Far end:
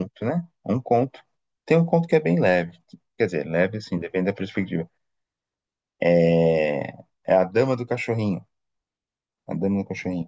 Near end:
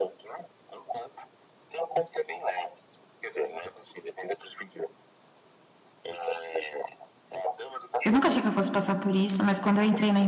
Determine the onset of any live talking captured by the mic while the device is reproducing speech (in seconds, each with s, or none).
8.0 s